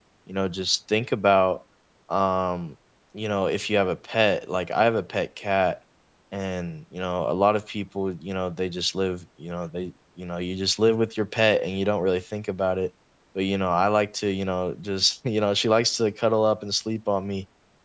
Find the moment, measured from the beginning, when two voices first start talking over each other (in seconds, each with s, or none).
none